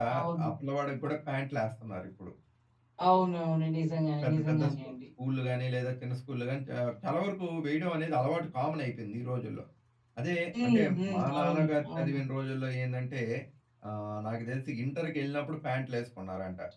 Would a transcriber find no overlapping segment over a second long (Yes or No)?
No